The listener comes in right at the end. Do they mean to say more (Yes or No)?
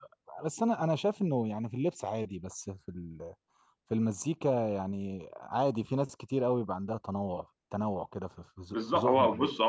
Yes